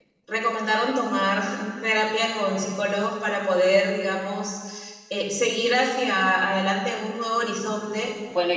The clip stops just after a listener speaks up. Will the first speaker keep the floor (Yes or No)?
No